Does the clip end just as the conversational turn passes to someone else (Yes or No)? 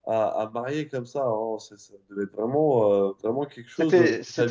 Yes